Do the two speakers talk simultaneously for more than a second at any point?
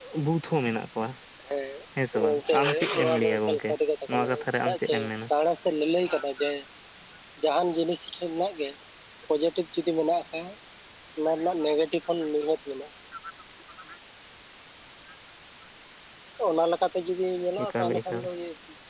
Yes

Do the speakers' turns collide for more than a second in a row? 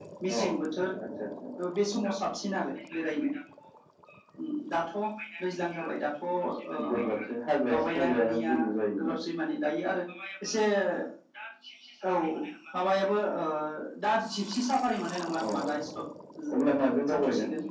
Yes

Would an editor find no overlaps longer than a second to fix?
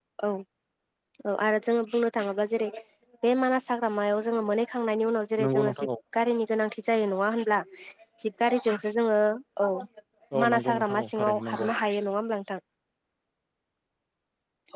No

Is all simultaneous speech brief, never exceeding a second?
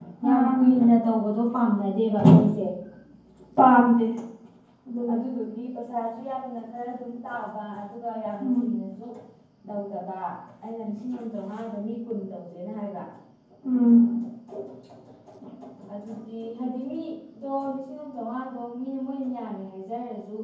Yes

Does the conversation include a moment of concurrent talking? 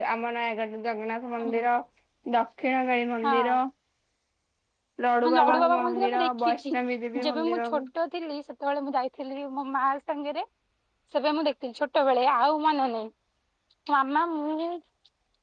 Yes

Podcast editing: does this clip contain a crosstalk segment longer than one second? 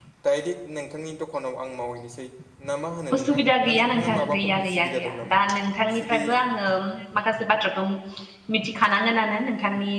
Yes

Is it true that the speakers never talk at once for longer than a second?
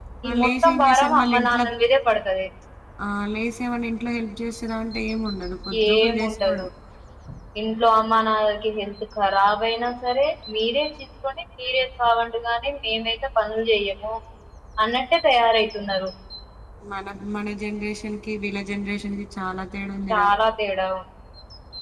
No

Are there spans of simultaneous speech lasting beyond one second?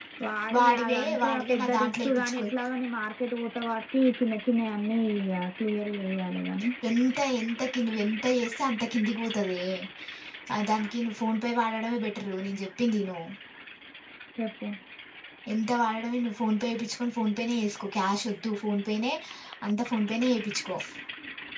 Yes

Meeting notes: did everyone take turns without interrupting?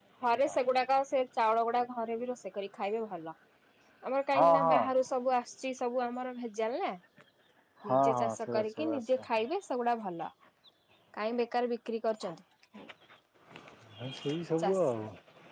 No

